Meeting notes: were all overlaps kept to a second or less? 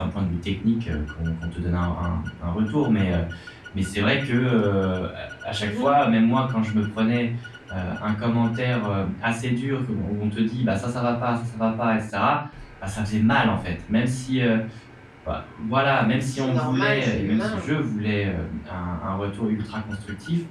No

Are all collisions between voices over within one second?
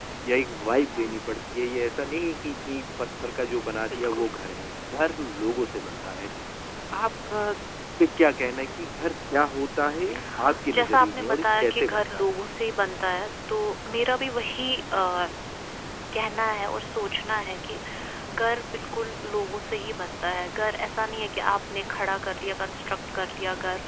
No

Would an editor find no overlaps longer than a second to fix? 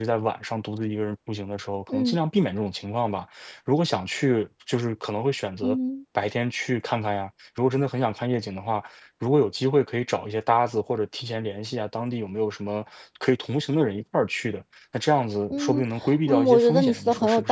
No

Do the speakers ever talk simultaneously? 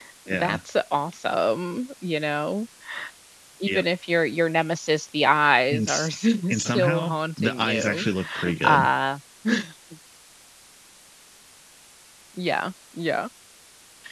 Yes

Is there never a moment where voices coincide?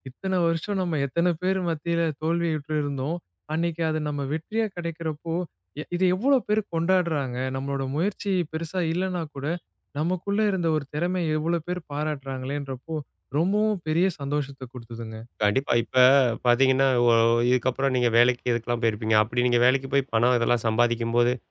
Yes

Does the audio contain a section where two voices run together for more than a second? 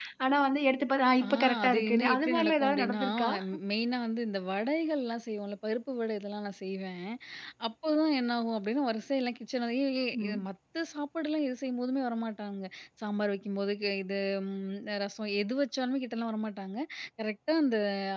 Yes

